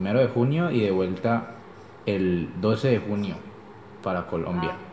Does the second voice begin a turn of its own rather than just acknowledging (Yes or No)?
No